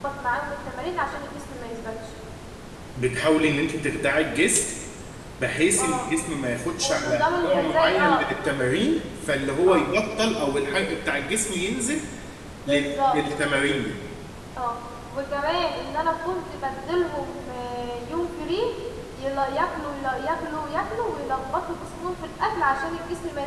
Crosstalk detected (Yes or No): Yes